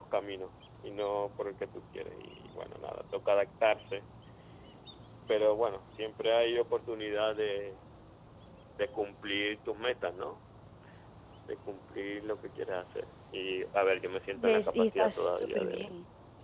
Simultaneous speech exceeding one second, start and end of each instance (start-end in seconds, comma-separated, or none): 14.4-15.9